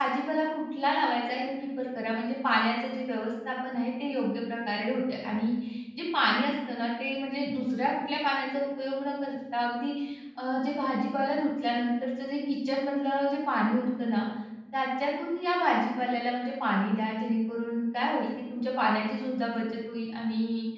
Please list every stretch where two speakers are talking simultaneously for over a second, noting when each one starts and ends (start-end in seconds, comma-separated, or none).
none